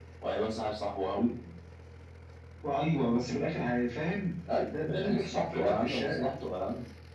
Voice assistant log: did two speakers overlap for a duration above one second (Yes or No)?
Yes